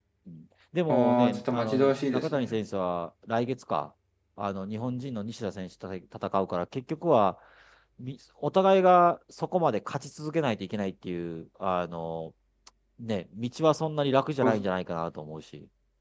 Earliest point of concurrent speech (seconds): 0.9 s

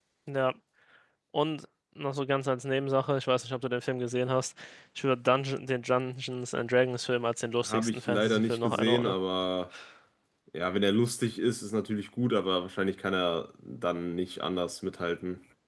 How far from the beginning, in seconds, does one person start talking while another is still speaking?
7.6 s

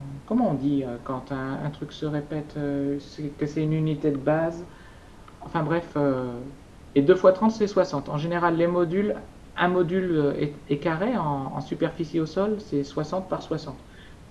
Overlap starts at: none

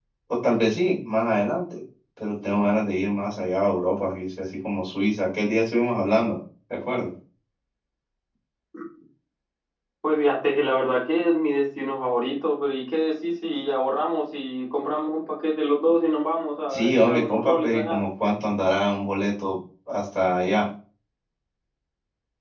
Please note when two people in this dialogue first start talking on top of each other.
16.7 s

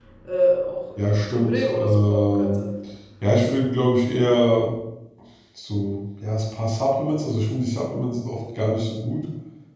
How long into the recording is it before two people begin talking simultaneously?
1.0 s

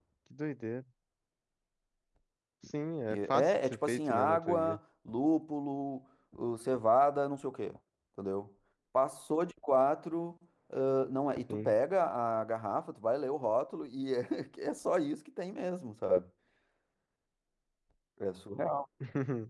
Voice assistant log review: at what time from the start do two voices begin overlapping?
3.1 s

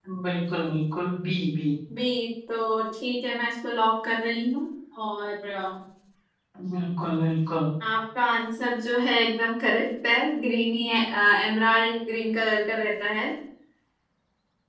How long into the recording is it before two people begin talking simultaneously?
none

